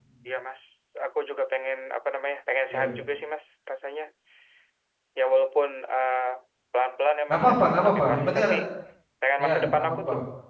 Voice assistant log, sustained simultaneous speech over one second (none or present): present